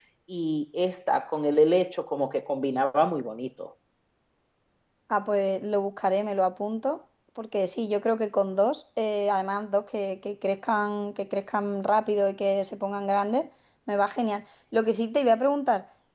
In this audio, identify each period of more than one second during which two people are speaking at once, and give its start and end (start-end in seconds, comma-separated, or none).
none